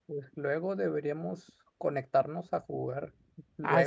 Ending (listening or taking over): taking over